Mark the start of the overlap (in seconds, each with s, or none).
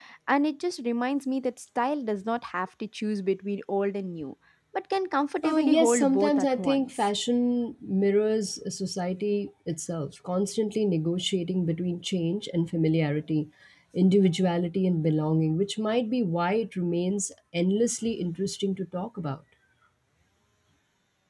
5.4 s